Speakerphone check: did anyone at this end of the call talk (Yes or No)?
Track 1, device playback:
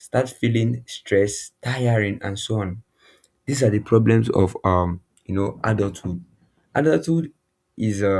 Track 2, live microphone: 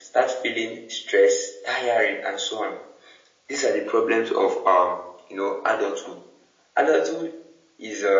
No